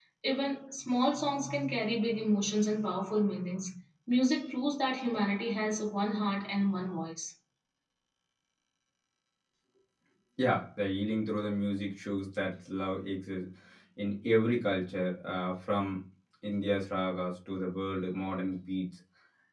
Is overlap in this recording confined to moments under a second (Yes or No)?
Yes